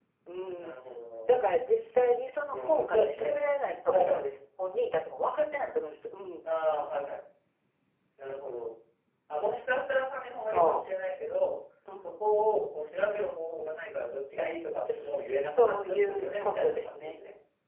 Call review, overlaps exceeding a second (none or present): present